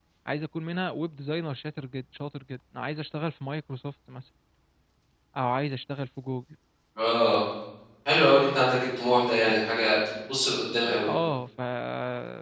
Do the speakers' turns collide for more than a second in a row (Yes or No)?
No